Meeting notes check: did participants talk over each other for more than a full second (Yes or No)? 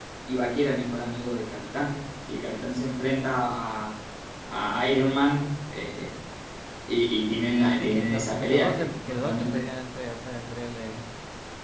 Yes